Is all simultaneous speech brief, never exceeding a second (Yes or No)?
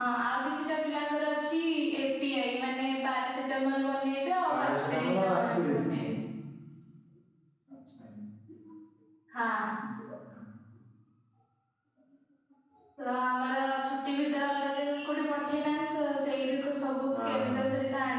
No